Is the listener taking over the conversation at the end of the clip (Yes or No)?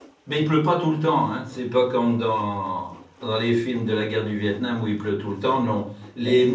No